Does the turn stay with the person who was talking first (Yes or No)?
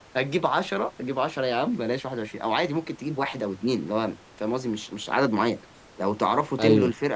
Yes